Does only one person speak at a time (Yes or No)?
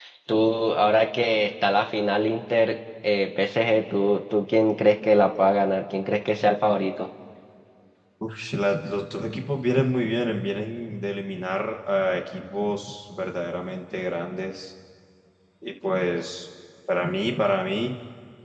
Yes